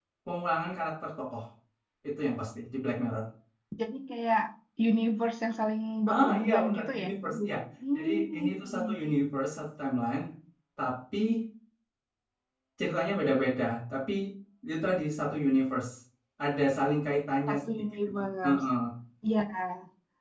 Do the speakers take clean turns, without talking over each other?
No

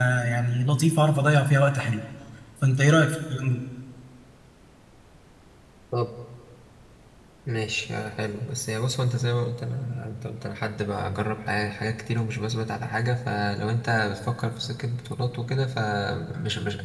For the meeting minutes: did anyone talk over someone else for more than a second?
No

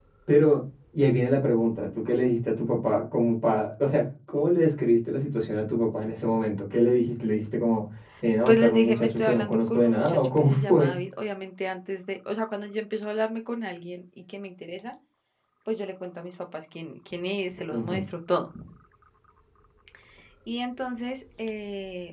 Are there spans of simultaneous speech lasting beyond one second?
Yes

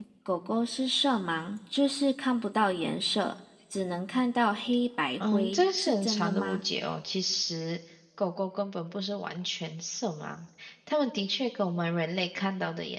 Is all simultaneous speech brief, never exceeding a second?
No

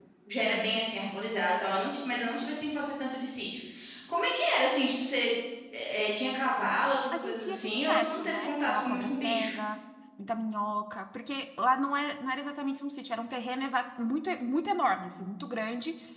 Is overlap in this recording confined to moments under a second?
No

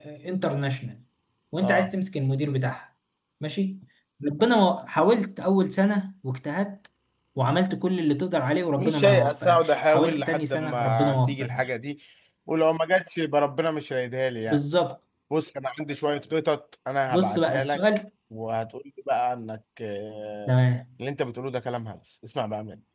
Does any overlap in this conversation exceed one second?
Yes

